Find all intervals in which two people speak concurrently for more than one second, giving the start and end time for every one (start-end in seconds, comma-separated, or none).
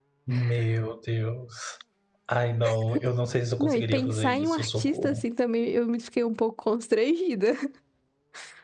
3.6-5.2